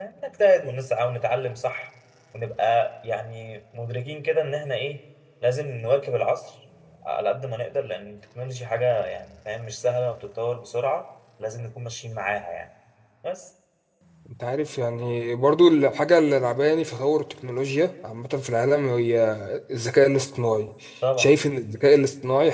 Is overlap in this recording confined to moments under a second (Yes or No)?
Yes